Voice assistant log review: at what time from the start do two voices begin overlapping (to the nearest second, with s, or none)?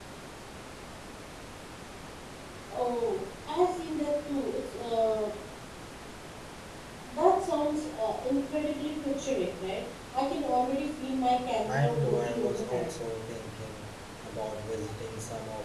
12 s